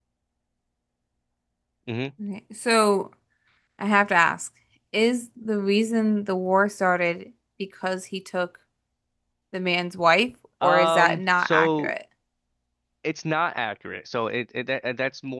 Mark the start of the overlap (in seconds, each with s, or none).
10.6 s